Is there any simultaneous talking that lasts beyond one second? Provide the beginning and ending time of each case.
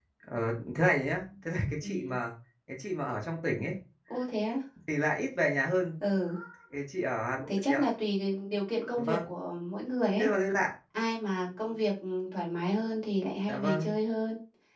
none

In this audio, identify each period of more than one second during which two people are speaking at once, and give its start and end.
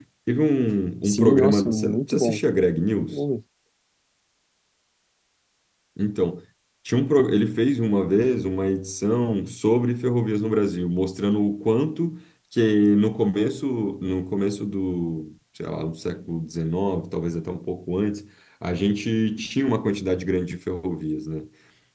1.0-2.4

